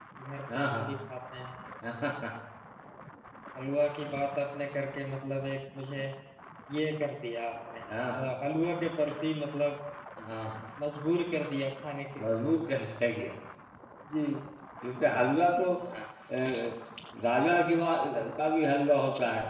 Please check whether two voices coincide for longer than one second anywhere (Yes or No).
No